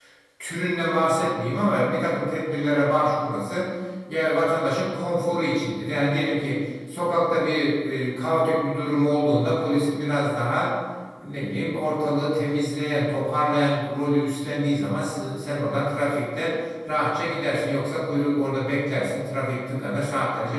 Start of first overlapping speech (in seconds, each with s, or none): none